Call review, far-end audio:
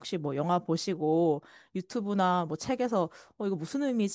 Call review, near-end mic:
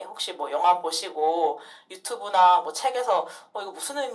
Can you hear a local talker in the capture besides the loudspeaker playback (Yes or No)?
No